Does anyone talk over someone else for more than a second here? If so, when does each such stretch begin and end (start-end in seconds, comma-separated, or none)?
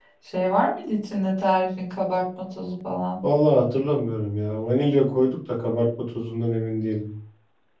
none